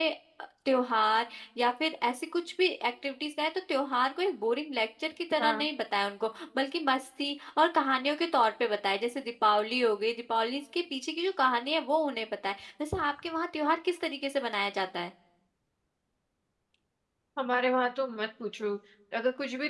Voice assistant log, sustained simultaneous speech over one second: none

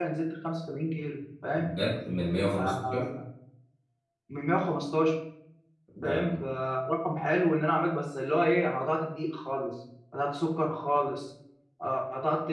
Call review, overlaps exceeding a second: none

